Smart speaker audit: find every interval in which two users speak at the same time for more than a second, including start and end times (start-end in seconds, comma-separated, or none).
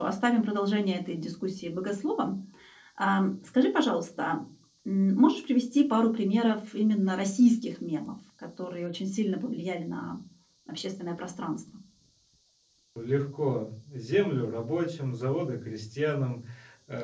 none